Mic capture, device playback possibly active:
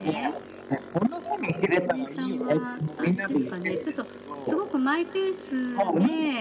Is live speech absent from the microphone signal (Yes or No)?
No